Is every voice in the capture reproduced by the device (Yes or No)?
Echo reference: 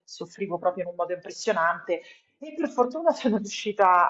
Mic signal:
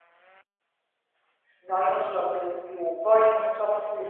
No